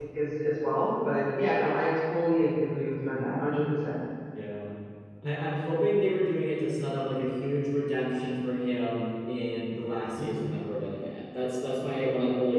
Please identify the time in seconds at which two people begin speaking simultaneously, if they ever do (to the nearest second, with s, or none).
none